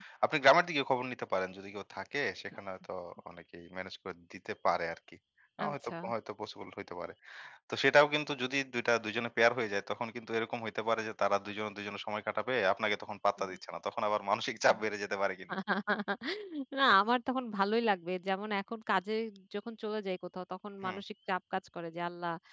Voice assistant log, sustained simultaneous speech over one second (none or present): none